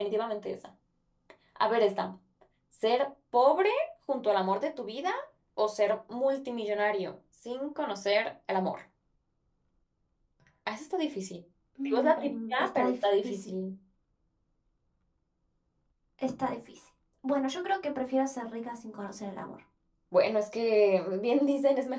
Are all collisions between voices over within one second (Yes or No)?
No